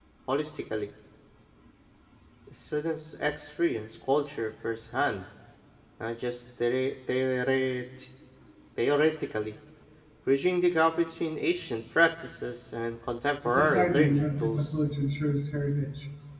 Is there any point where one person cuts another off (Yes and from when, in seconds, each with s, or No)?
Yes, from 13.4 s